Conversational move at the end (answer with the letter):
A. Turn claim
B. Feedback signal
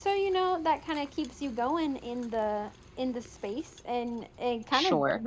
B